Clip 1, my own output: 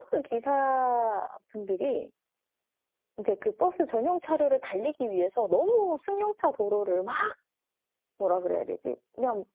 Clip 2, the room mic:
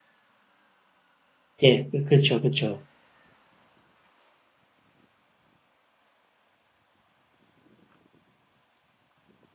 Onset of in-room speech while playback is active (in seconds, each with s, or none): 1.6 s